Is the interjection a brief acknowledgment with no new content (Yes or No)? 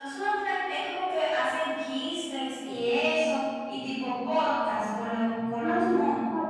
No